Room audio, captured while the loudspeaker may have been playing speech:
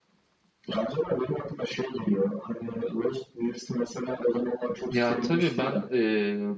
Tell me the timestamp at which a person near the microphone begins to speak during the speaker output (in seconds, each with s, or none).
4.9 s